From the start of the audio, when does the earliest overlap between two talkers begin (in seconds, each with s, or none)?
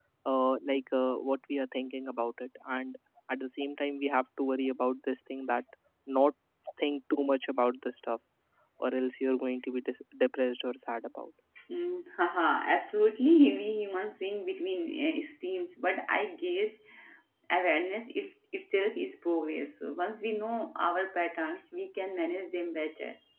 none